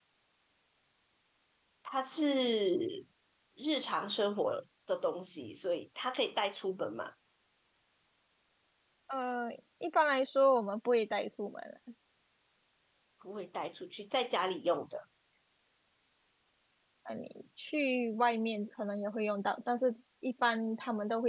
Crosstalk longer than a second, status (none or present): none